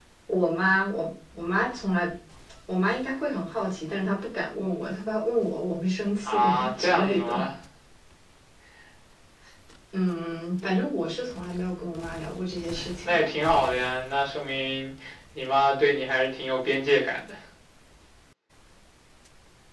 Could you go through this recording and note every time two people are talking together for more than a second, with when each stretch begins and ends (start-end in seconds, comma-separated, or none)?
6.3-7.5